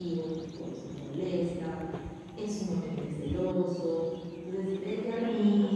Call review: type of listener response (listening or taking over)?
listening